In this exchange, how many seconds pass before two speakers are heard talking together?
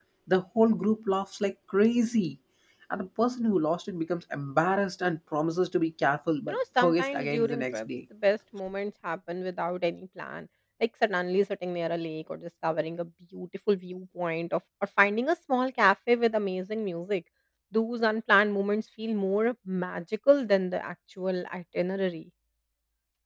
6 s

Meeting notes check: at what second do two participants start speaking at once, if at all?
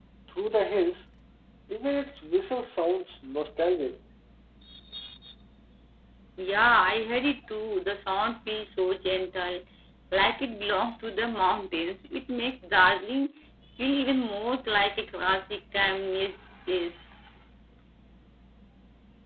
none

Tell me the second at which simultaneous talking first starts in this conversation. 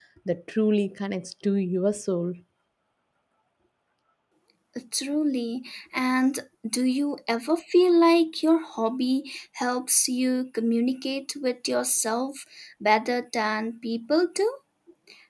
none

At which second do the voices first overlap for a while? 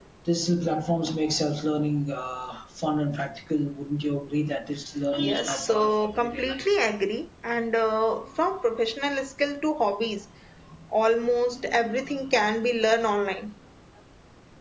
5 s

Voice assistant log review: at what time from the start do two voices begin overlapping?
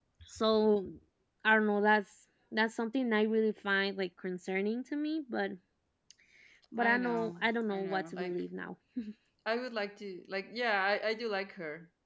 7 s

